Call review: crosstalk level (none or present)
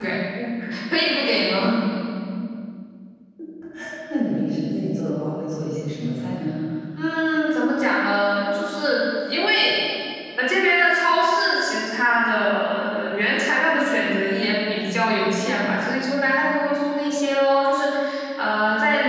none